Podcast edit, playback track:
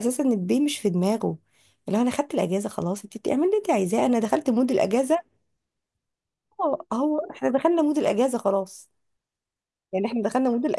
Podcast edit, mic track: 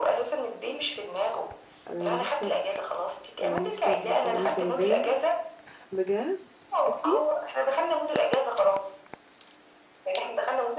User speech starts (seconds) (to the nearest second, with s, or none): 2 s